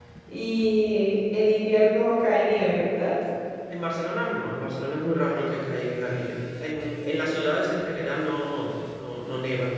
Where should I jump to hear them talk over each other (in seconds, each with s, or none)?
none